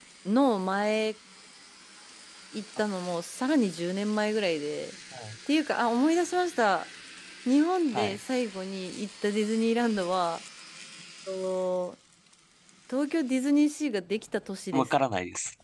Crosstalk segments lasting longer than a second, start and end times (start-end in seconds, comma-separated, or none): none